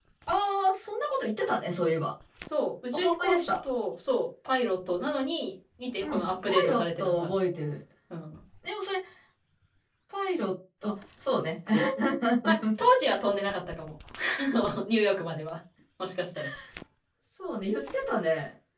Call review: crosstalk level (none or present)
present